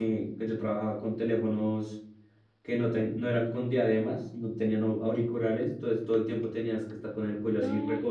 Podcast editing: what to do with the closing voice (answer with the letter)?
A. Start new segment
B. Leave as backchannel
B